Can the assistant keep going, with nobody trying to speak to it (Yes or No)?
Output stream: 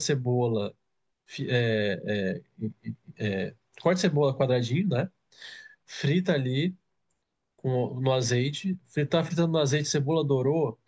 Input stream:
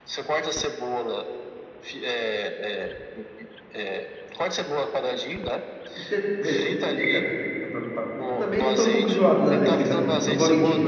No